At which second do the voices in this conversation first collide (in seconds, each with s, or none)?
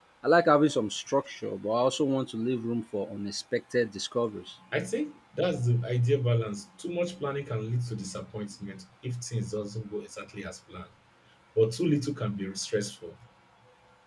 none